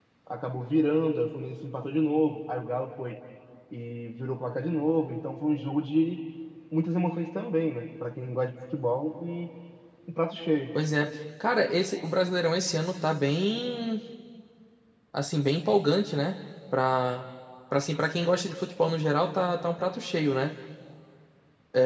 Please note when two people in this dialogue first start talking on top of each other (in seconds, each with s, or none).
none